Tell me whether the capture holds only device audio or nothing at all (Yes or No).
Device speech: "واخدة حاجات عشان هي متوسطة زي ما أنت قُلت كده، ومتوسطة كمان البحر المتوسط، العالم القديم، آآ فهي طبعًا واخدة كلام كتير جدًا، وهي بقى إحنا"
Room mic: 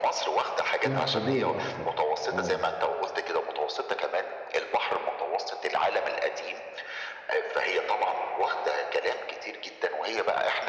No